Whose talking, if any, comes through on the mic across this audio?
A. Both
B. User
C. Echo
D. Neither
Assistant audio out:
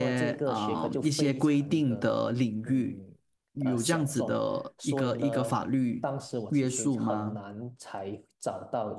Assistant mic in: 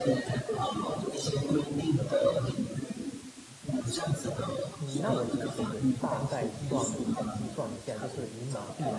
A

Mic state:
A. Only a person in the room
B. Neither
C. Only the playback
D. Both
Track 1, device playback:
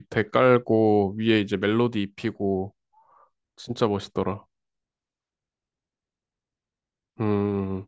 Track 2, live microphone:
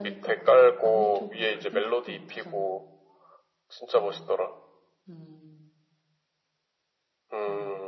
D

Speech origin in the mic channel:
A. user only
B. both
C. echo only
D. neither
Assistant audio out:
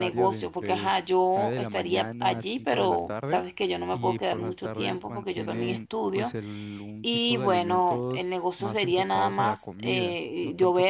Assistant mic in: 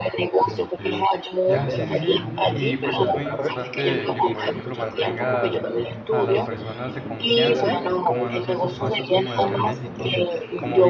B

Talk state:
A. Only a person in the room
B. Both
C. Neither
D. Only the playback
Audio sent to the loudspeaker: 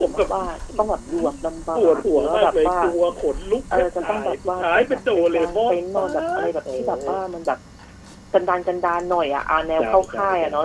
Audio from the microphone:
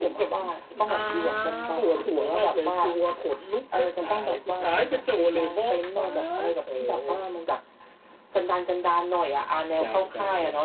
B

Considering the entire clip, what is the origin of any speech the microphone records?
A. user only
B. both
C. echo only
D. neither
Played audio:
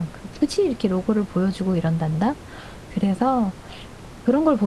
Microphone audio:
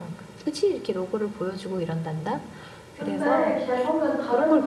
B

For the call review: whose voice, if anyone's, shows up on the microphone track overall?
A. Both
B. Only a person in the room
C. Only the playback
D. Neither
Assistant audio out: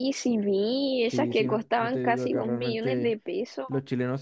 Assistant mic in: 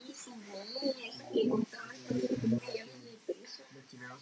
C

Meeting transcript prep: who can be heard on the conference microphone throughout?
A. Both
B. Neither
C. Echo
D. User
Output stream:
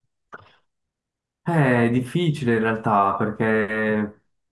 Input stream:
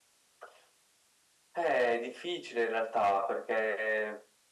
C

